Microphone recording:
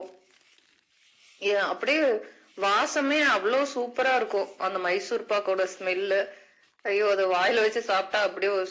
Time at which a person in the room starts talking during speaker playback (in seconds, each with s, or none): none